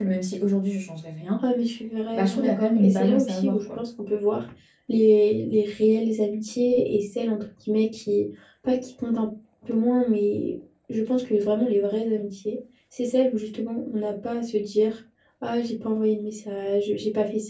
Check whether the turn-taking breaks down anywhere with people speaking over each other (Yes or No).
Yes